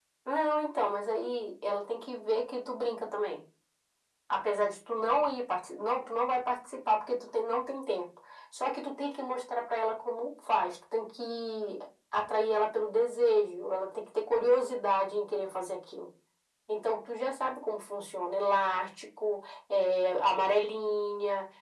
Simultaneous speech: No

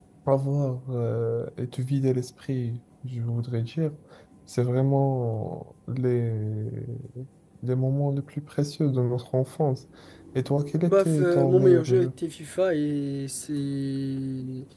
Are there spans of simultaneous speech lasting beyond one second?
Yes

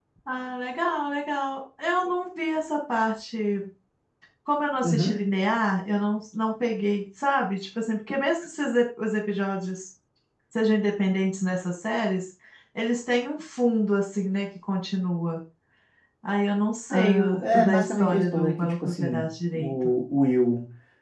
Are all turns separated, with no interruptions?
No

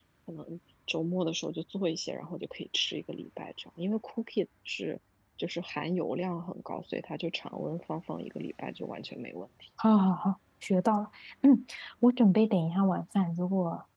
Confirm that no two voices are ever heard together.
Yes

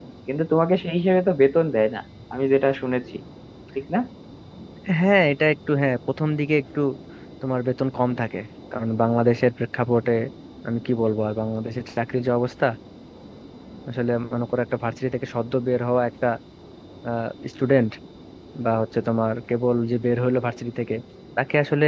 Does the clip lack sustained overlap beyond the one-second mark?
Yes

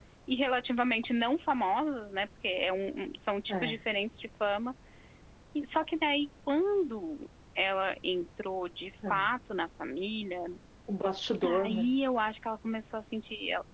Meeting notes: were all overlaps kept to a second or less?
Yes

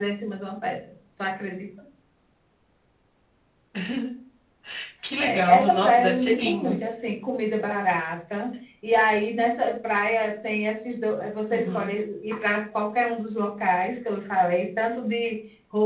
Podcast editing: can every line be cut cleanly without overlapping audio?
No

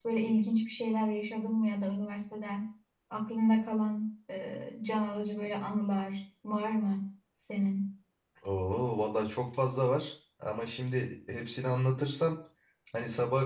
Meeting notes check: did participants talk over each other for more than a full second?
No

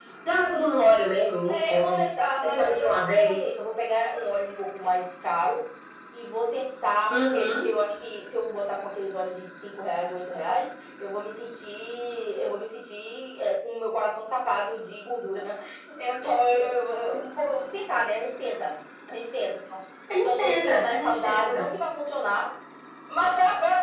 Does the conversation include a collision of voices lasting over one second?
Yes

